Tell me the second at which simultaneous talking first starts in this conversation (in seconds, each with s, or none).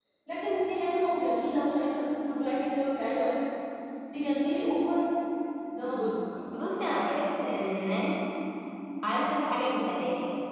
none